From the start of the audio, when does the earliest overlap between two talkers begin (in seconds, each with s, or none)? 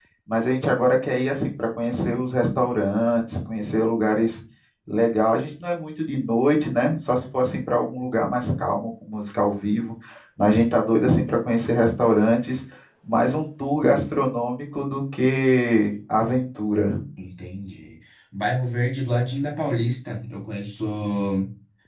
none